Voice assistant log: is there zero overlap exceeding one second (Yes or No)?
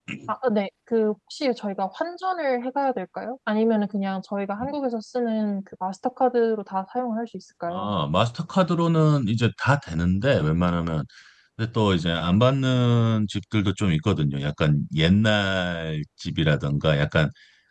Yes